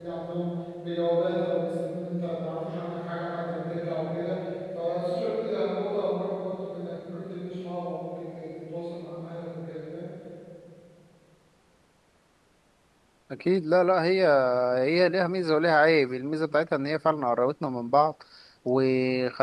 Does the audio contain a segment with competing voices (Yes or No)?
No